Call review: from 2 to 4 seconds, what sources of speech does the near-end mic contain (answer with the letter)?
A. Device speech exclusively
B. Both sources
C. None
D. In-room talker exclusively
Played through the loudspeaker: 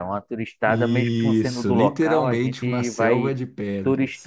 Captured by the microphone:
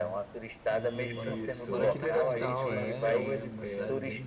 B